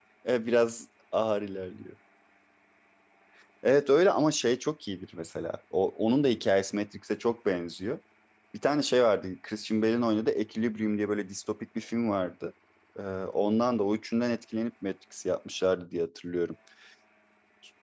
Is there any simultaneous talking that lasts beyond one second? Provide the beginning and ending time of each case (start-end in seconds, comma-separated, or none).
none